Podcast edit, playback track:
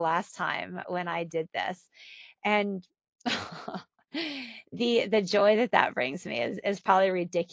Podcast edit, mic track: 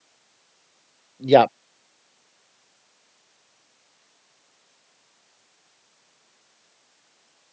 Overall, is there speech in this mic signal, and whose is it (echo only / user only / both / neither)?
user only